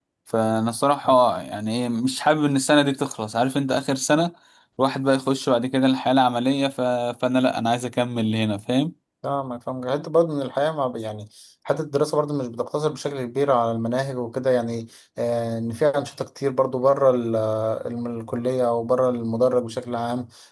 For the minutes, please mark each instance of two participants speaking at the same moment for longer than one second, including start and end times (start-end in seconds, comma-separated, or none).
none